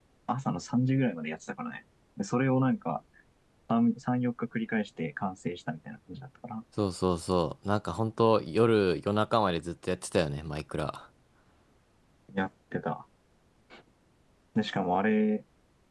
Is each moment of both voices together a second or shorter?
Yes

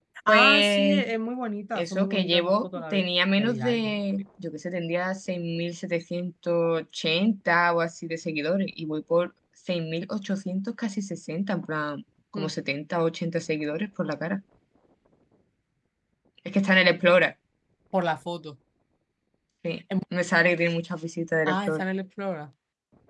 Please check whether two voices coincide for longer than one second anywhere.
Yes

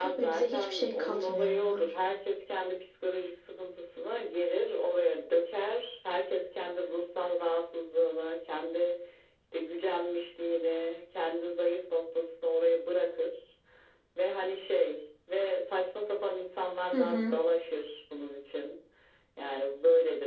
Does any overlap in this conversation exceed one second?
Yes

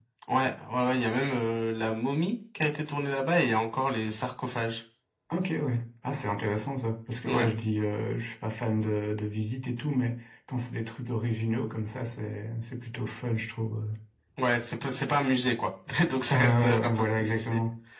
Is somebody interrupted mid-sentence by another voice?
Yes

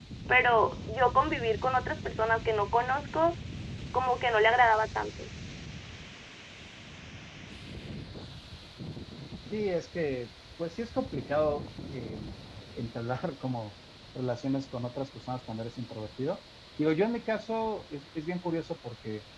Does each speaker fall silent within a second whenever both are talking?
Yes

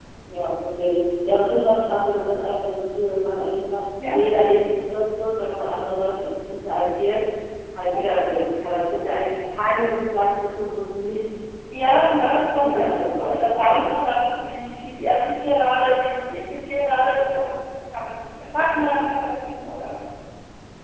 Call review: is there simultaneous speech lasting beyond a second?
Yes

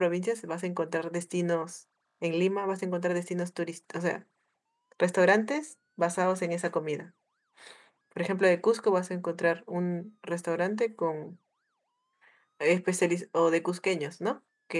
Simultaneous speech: No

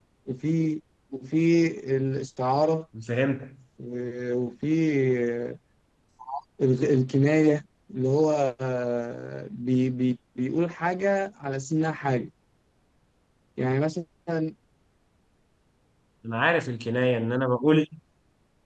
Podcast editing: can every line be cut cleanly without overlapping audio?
Yes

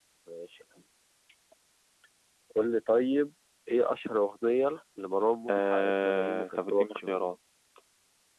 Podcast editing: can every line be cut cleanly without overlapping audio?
No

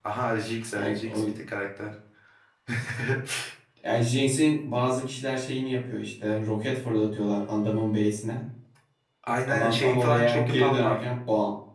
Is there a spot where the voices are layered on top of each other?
Yes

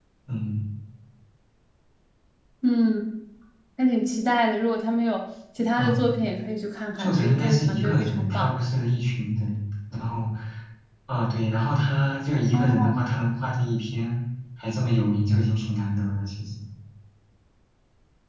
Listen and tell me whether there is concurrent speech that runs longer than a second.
Yes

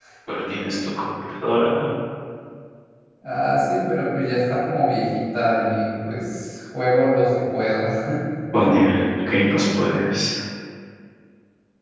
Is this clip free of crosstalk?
Yes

